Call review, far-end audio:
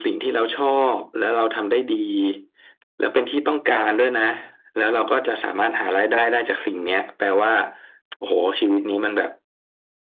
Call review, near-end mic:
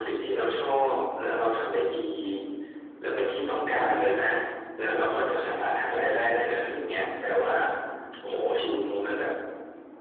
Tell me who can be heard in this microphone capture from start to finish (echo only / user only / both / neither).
echo only